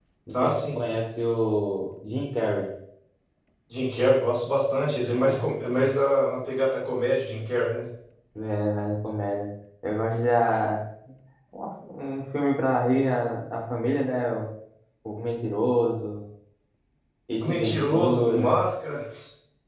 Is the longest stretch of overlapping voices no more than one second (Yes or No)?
No